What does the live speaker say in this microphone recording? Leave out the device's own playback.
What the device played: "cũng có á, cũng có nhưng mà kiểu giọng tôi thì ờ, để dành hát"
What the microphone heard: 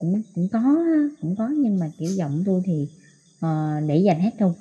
none

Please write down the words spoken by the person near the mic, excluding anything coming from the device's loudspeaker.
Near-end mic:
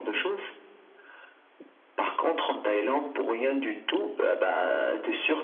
none

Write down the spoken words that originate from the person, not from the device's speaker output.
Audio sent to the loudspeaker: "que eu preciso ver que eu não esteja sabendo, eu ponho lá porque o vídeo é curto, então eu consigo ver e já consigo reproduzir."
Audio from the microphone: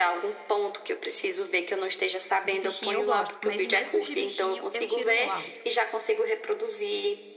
De bichinho eu gosto, mas mesmo de bichinho eu tiro o áudio.

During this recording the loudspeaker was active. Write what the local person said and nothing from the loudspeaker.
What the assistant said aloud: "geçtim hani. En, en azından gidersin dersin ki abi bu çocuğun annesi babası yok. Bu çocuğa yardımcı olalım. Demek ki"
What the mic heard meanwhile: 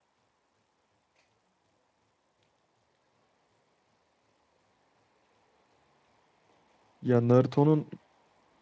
Ya Naruto'nun

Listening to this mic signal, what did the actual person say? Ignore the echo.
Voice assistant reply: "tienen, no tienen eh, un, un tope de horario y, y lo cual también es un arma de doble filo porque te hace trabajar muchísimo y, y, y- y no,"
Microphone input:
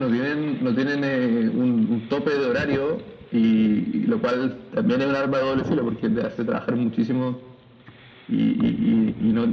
none

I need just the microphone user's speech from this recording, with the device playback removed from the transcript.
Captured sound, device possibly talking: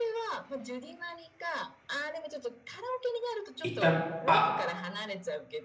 行った、あ、

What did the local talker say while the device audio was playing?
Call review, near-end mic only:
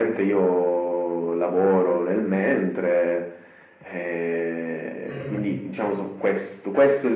Mm.

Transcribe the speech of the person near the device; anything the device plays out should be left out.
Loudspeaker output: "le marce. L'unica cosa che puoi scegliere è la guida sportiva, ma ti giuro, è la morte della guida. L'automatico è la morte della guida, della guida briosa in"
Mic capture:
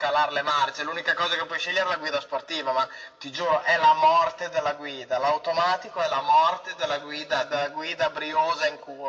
none

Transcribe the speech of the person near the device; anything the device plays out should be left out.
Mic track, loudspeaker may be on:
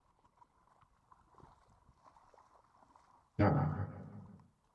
à

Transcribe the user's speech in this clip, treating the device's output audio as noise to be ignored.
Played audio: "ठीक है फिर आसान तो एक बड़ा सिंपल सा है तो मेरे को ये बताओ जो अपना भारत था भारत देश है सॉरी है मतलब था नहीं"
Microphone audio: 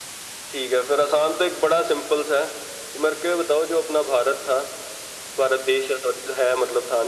none

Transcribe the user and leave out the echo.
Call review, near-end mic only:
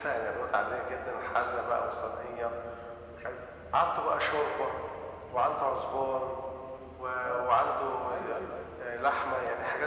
اه ايوه ايوه ايوه

